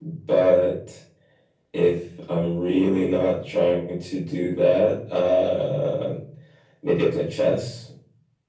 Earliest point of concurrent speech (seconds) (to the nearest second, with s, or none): none